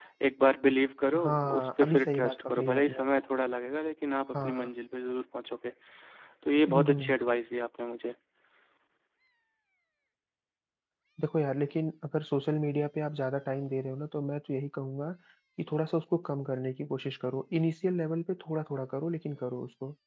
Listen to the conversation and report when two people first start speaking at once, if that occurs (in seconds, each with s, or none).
1.2 s